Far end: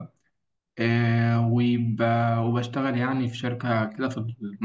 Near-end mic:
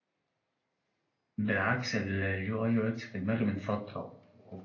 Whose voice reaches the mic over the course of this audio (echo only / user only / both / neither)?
user only